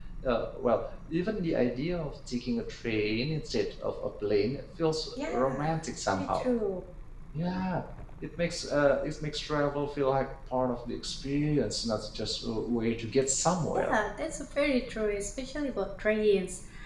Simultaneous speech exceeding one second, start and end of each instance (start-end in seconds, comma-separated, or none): 5.2-6.4